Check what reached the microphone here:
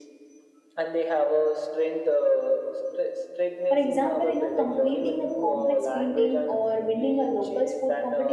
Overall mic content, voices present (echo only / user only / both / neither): both